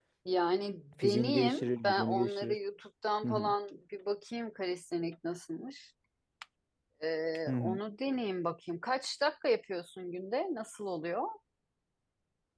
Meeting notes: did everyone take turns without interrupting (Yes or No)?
No